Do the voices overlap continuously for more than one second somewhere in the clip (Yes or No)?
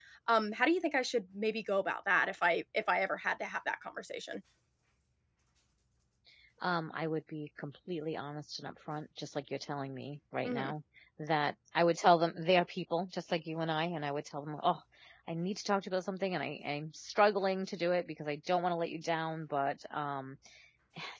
No